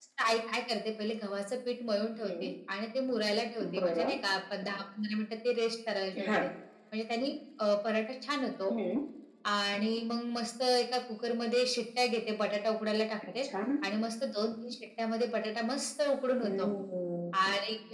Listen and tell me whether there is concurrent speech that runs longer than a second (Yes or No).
No